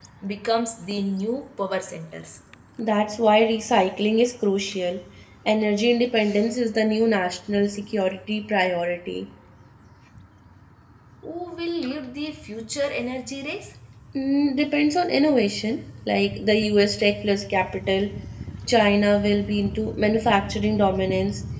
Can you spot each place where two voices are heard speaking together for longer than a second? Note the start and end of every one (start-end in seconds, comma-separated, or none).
none